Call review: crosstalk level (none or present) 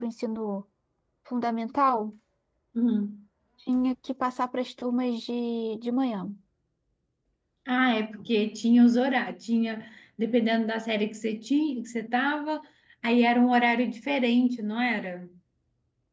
none